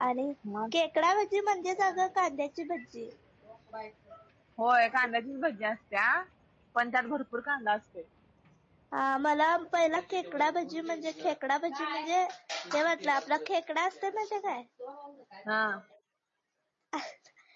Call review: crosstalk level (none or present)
none